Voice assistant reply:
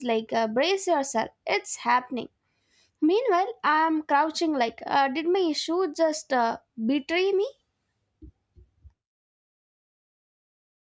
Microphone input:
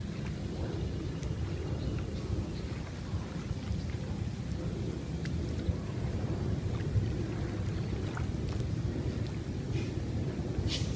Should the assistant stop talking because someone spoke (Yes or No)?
No